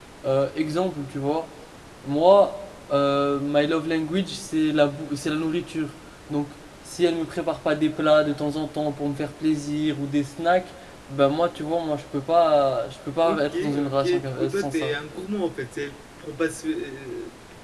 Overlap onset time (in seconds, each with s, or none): 13.2 s